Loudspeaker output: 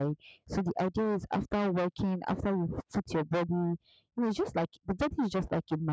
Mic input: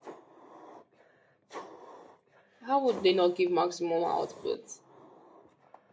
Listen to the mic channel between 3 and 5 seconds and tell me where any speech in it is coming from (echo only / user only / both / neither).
user only